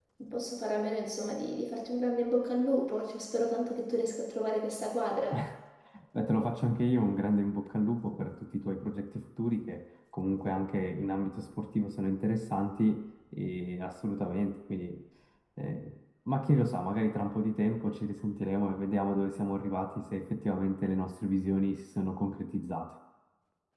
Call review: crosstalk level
none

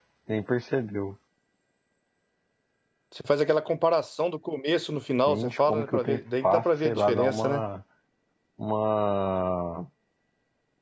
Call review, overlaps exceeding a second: present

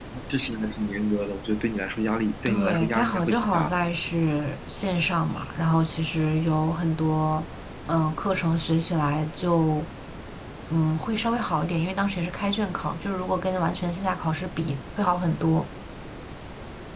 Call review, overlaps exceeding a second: present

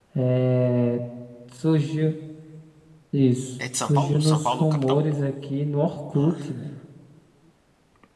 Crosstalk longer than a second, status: present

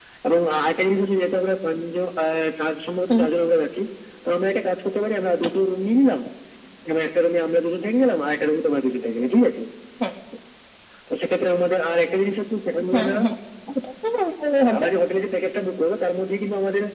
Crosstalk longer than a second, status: none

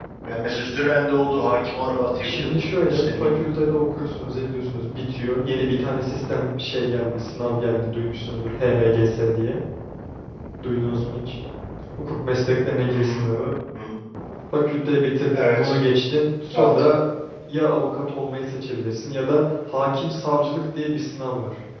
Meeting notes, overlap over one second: present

